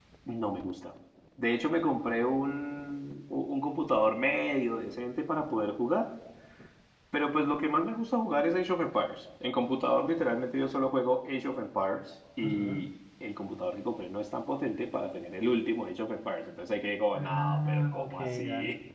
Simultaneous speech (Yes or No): Yes